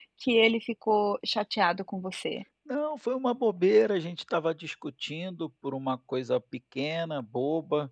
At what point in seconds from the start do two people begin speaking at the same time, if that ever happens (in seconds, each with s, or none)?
none